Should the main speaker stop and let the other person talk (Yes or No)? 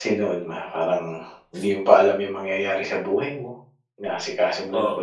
No